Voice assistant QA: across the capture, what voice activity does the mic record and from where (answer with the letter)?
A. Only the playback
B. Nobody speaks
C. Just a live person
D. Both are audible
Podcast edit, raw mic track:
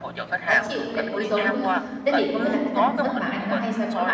D